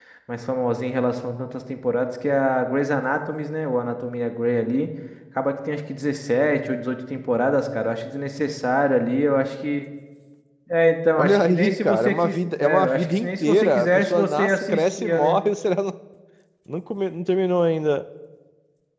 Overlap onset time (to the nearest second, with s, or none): 11 s